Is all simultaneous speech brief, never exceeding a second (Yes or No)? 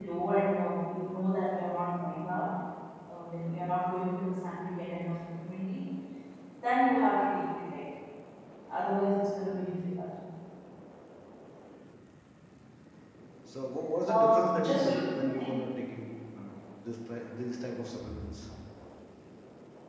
No